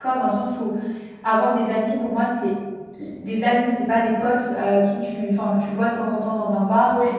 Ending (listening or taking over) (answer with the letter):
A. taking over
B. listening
B